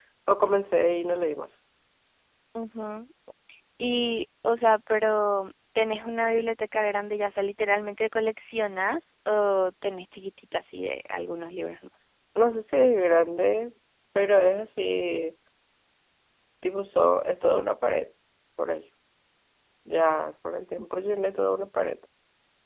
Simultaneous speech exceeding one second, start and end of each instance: none

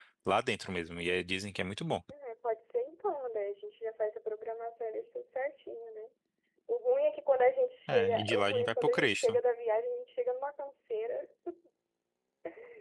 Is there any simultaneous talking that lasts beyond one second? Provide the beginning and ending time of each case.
7.9-9.4

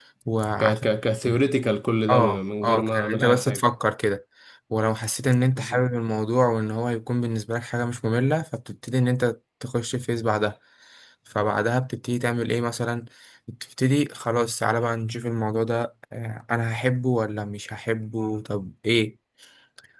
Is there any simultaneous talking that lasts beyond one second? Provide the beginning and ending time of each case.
2.1-3.7

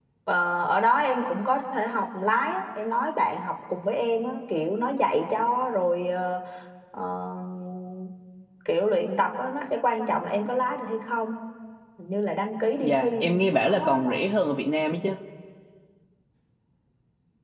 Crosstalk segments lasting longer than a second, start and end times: 12.8-14.2

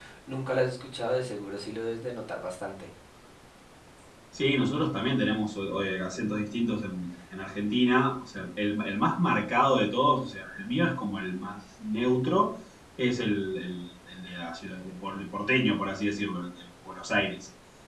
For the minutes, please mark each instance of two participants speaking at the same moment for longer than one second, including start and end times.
none

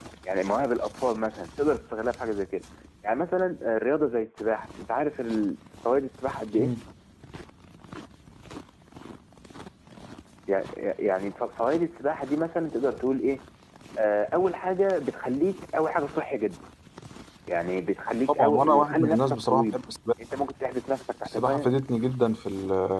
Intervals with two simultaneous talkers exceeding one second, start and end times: 18.3-19.8

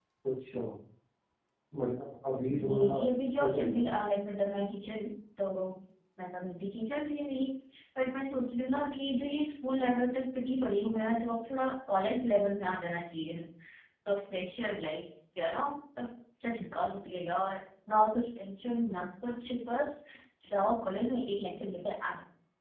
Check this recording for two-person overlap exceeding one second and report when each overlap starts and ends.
2.5-3.9

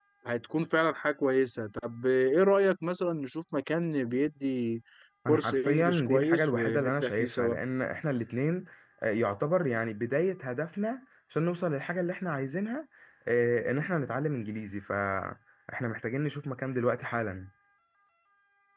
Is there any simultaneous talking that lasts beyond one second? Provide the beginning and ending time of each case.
5.3-7.5

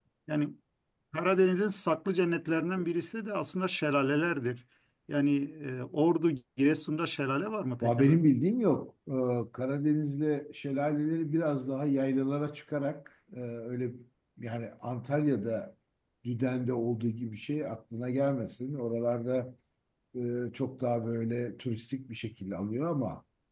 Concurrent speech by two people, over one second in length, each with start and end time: none

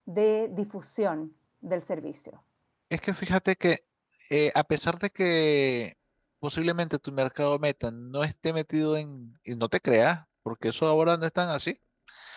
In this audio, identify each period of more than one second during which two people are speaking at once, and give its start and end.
none

